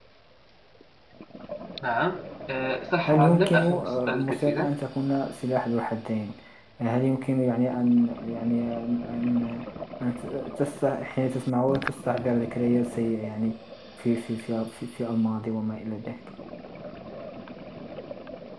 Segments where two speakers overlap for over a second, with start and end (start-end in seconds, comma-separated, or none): 3.0-4.7